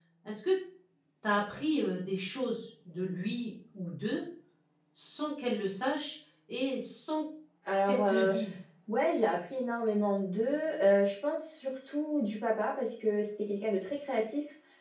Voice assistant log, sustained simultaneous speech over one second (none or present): none